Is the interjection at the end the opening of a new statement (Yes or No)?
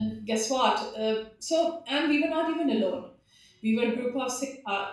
No